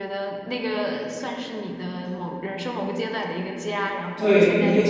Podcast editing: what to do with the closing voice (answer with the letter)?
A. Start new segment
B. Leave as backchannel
A